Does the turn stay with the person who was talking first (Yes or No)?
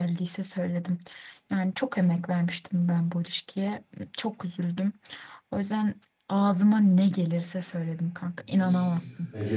No